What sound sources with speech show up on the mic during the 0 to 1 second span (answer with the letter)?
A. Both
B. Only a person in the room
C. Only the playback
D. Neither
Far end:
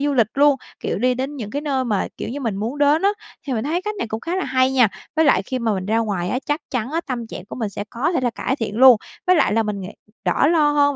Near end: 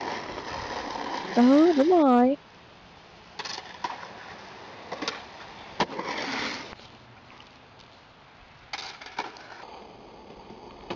D